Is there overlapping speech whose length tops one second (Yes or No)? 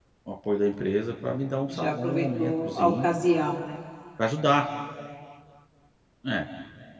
Yes